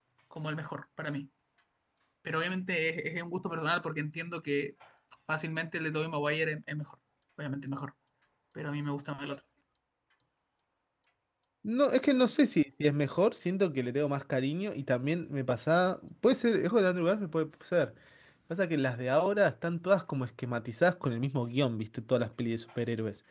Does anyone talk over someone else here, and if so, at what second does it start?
none

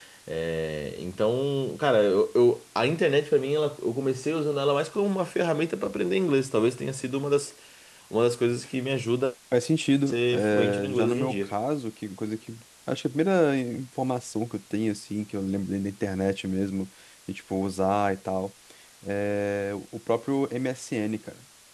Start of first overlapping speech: 10 s

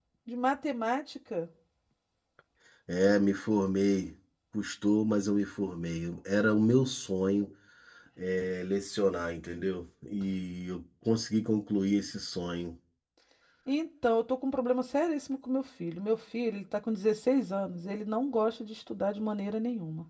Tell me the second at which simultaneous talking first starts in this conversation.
none

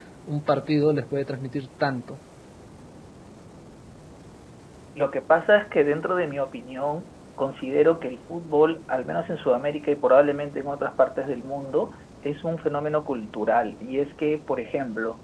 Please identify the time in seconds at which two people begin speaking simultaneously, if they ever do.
none

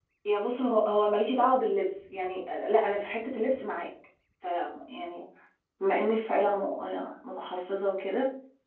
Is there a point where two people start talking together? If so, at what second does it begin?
none

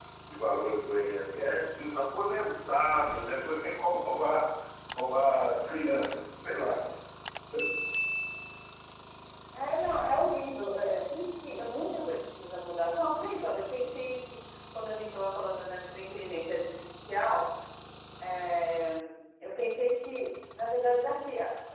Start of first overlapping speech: none

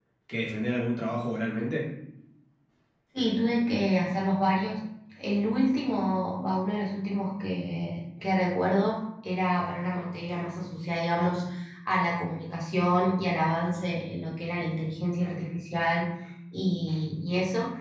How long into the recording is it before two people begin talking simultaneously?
none

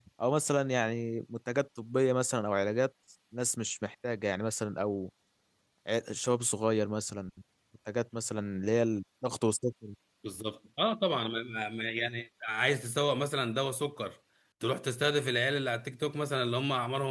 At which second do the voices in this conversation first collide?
none

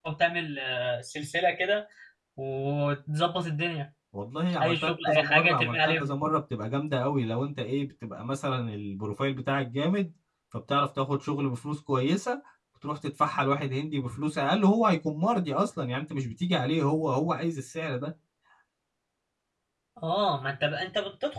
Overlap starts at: 5 s

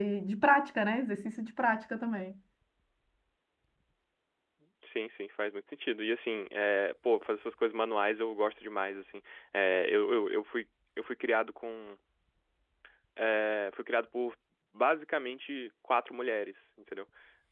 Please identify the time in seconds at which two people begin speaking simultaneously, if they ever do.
none

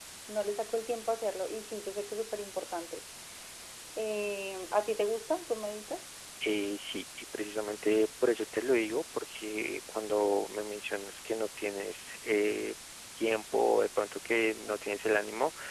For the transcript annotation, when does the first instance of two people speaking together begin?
none

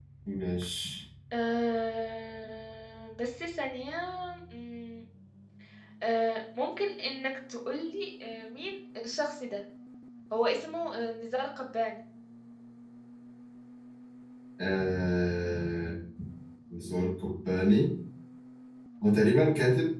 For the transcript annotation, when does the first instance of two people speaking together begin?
none

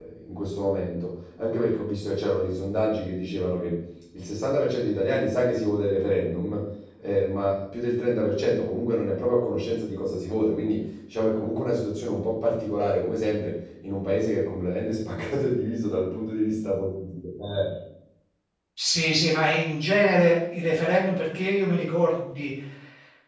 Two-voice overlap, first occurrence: none

